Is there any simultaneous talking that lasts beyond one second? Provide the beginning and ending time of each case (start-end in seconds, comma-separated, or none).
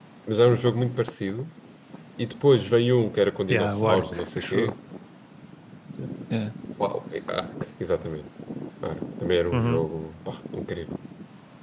3.5-4.7